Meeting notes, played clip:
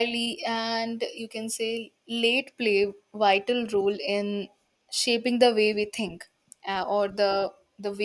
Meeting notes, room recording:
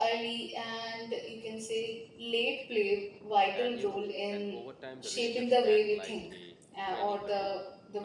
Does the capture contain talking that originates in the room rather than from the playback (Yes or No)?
Yes